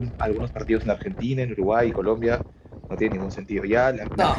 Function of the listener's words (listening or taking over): listening